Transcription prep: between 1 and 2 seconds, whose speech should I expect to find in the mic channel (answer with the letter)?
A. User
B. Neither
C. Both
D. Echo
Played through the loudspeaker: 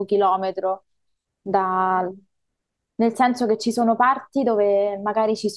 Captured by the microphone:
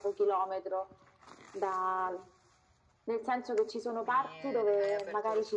D